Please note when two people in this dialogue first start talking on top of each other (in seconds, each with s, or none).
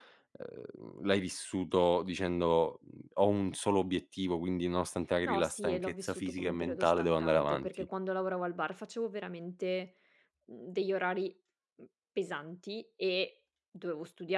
5.2 s